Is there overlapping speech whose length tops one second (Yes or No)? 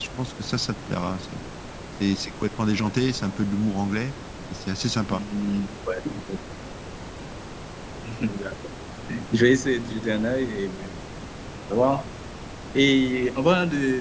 No